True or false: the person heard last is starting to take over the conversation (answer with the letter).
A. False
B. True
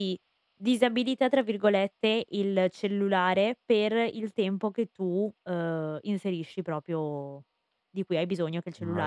A